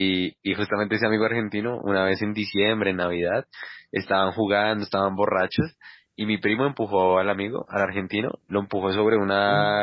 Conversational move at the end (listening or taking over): listening